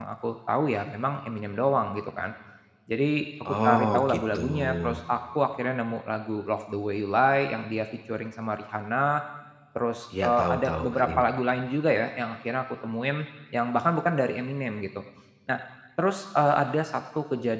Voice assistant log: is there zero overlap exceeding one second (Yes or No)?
No